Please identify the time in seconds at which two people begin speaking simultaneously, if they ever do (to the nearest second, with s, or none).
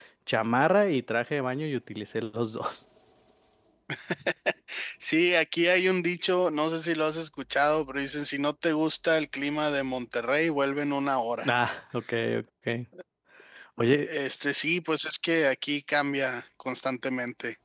none